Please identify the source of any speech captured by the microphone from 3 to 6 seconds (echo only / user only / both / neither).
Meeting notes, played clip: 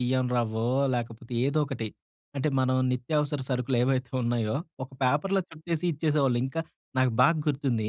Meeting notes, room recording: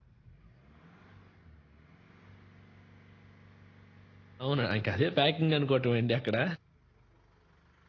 user only